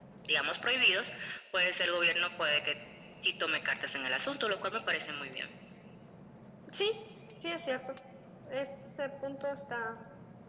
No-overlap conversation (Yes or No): Yes